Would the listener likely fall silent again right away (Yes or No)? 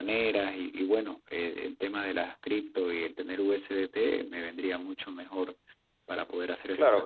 No